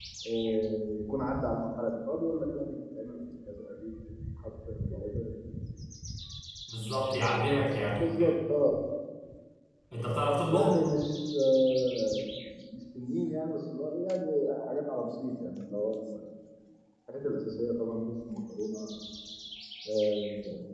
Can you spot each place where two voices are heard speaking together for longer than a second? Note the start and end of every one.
none

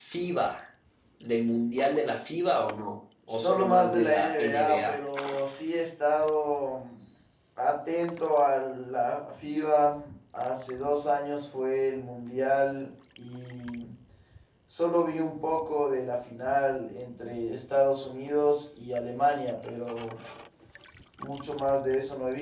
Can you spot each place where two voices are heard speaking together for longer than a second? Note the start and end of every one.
3.3-5.0

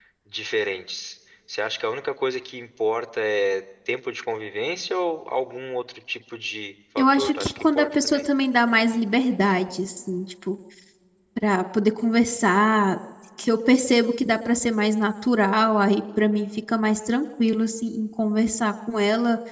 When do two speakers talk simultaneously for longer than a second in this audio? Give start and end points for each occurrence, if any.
7.0-8.2

